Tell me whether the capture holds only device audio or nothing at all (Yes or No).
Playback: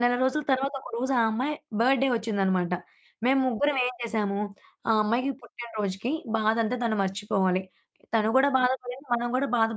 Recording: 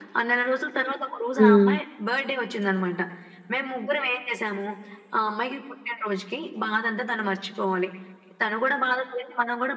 No